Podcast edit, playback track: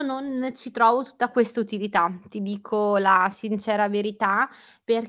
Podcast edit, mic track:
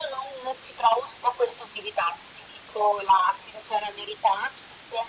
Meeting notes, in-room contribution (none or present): none